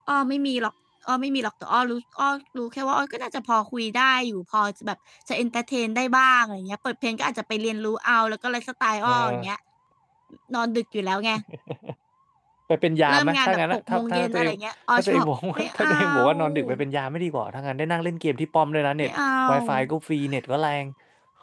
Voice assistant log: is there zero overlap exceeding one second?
No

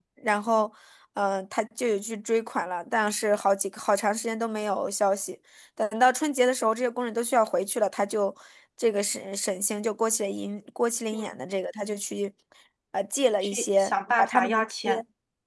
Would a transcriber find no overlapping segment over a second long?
No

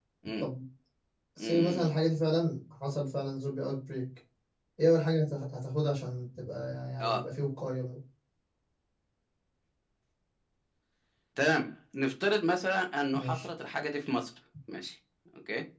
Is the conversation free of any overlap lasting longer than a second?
Yes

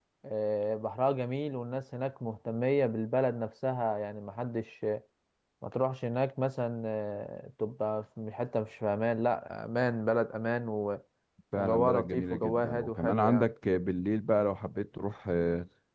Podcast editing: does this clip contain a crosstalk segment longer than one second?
Yes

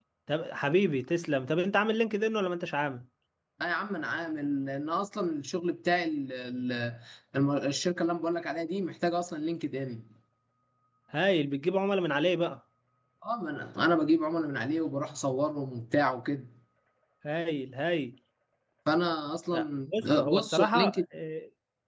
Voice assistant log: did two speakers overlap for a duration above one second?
Yes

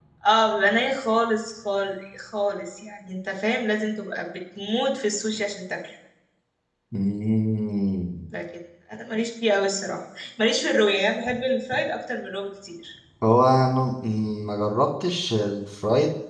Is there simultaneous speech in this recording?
No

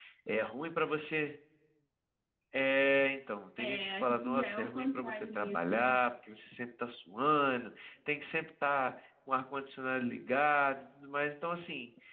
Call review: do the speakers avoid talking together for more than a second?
No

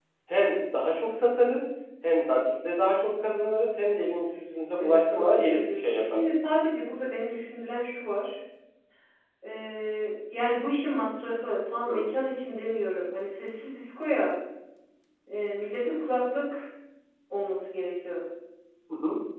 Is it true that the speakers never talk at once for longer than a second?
No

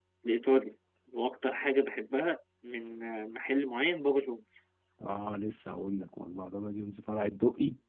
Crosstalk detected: No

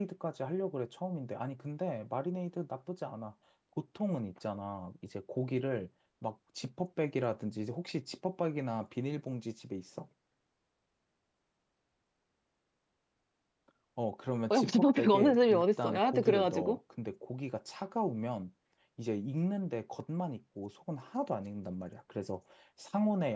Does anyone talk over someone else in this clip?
Yes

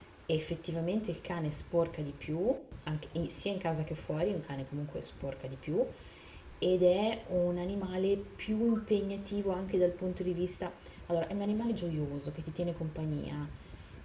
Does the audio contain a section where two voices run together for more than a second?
No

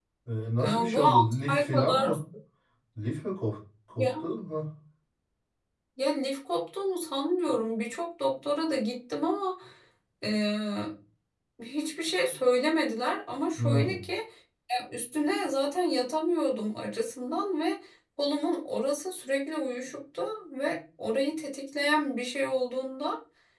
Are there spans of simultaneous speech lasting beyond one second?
Yes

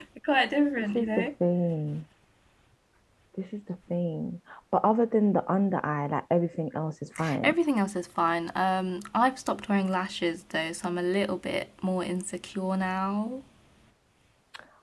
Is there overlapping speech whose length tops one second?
No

